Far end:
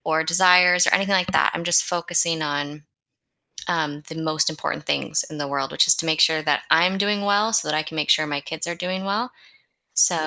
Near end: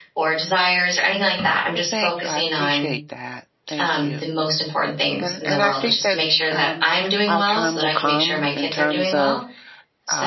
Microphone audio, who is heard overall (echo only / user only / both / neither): both